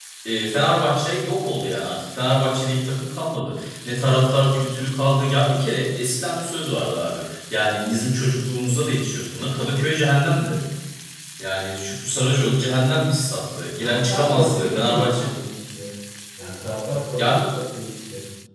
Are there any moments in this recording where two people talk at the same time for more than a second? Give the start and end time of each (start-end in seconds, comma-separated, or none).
13.8-15.3